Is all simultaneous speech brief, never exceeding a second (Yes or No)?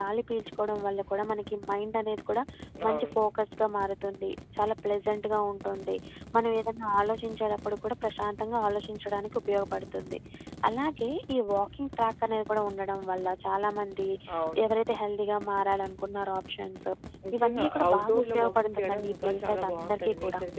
No